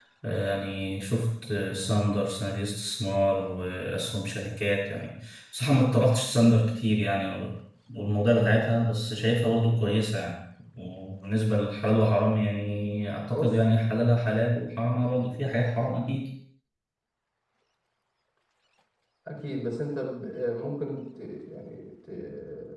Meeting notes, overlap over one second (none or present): none